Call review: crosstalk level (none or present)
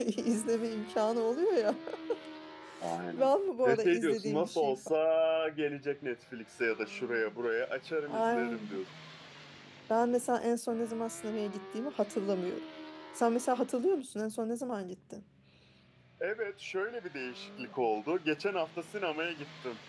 present